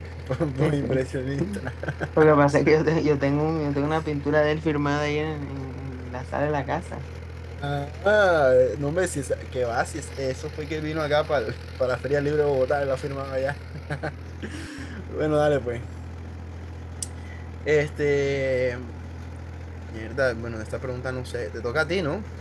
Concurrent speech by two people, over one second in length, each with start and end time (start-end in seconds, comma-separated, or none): none